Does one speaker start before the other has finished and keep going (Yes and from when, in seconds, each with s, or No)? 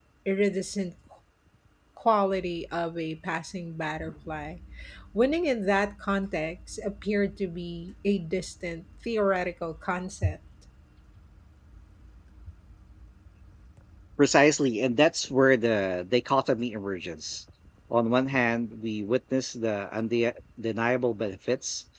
No